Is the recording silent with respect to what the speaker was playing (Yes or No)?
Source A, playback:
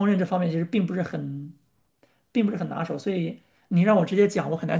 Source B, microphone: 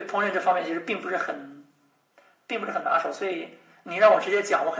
No